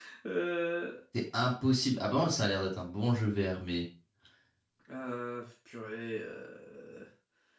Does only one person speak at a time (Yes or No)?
Yes